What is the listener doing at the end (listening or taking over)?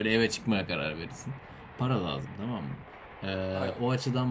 listening